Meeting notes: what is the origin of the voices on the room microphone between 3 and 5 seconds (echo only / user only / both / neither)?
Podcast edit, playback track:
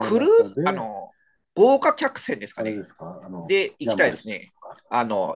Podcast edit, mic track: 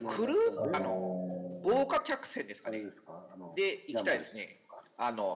echo only